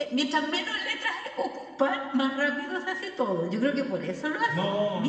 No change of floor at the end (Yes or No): No